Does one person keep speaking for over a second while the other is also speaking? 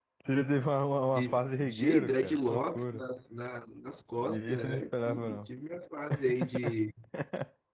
Yes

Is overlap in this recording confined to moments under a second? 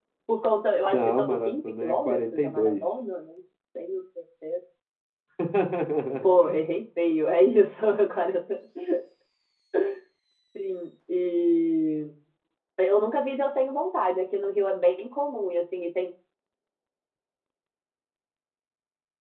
No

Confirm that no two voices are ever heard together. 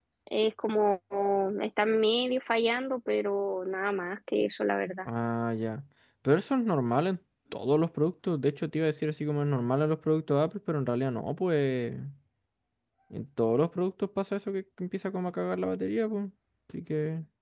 Yes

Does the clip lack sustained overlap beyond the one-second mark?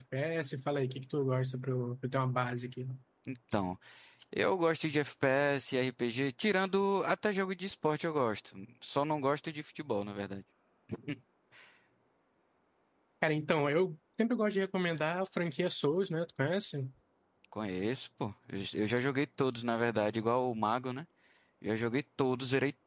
Yes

